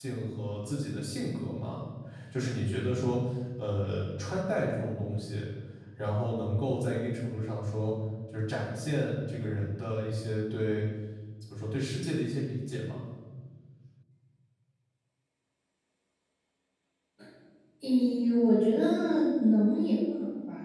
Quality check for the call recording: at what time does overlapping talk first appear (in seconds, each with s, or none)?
none